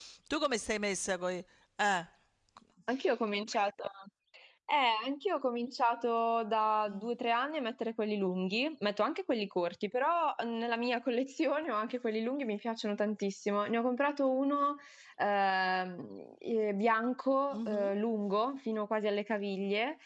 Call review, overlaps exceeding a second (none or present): none